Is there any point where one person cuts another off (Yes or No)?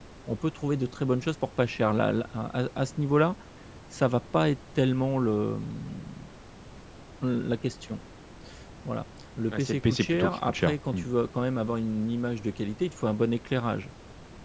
Yes